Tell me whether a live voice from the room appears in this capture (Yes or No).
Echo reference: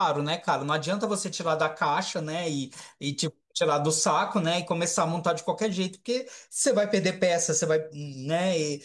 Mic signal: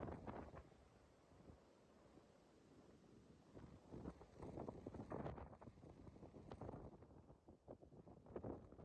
No